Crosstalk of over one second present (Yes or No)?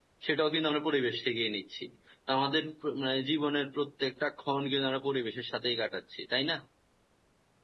No